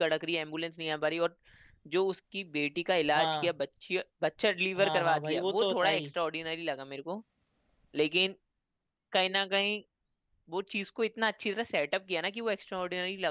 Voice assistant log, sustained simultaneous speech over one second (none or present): present